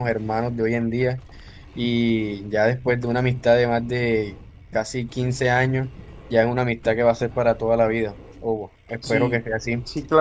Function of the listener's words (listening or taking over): taking over